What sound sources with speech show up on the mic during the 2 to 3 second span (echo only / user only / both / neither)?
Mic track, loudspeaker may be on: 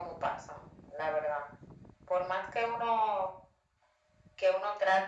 echo only